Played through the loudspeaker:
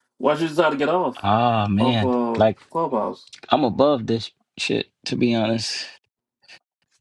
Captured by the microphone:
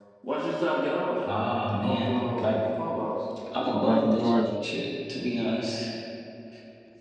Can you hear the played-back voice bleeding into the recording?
Yes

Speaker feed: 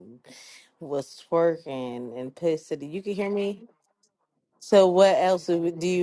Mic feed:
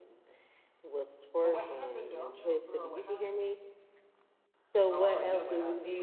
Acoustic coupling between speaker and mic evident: Yes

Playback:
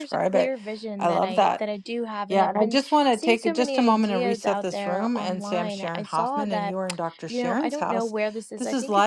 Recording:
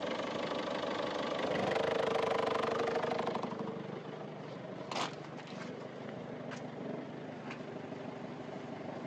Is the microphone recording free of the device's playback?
Yes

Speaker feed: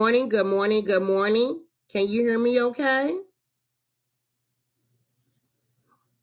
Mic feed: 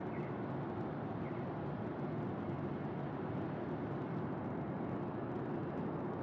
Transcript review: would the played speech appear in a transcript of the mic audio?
No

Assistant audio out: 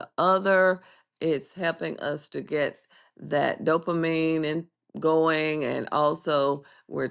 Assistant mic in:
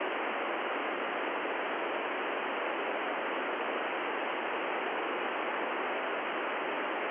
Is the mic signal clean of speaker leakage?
Yes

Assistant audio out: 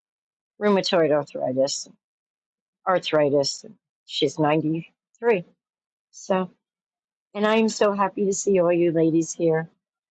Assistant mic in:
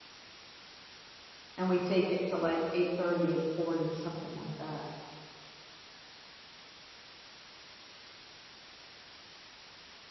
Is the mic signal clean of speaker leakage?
Yes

